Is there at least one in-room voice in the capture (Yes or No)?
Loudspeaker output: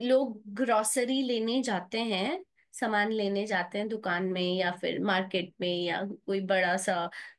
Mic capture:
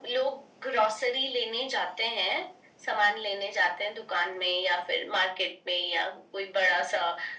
No